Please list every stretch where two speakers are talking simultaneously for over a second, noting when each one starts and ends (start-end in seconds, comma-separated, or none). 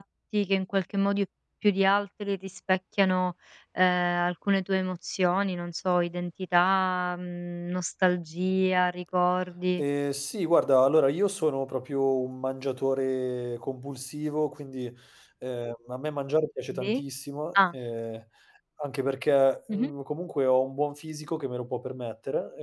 none